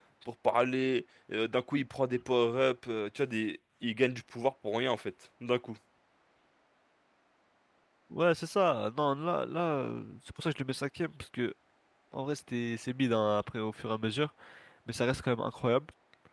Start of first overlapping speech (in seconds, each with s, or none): none